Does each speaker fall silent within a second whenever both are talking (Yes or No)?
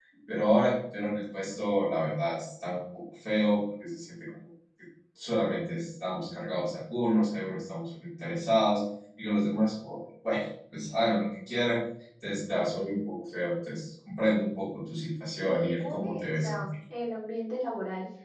No